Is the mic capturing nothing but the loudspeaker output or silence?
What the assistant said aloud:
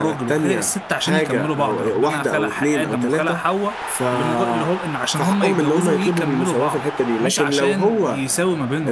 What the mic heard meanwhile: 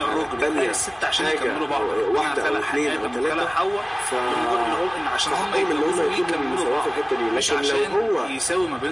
Yes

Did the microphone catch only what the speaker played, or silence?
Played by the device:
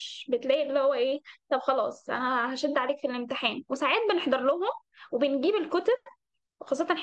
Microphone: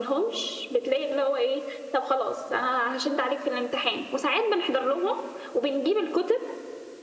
Yes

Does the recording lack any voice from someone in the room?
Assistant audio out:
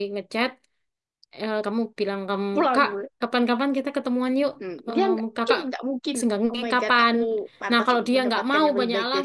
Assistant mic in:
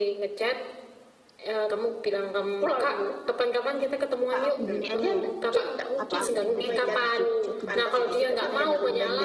No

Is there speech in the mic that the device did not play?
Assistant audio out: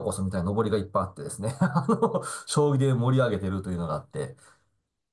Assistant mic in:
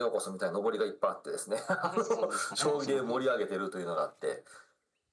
Yes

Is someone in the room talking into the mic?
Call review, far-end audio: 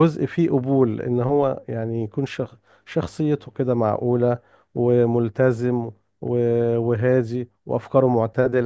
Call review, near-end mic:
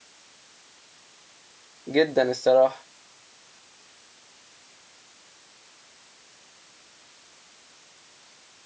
Yes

